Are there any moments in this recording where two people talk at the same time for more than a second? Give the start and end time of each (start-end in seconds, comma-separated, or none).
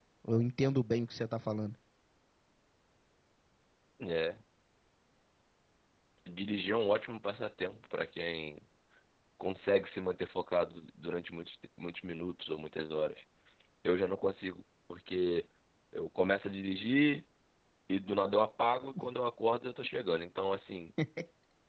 none